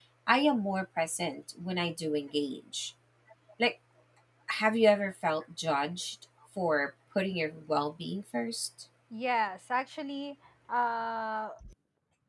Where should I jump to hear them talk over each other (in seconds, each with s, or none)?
none